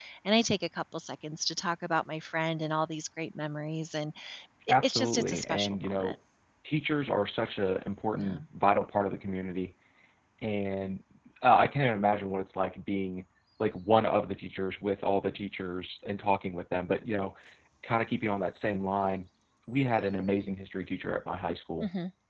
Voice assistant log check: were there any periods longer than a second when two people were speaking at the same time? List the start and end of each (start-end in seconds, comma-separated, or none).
4.7-6.2